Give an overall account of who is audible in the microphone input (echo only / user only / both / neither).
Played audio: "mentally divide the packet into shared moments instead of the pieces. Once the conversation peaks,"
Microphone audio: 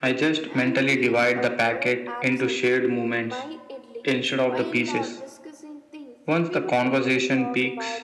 both